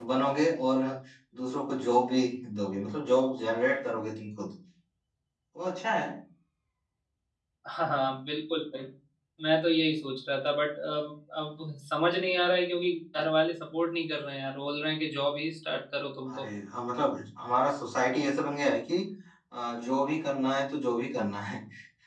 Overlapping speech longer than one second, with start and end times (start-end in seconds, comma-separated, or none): none